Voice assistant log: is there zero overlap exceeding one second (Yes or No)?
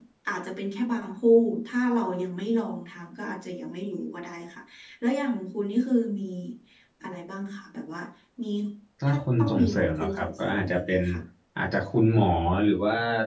No